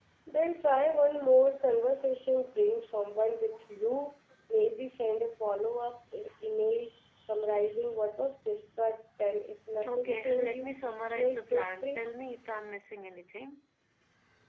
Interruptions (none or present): present